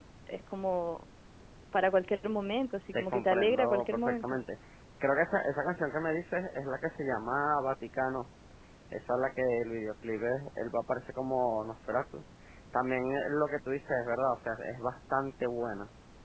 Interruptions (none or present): present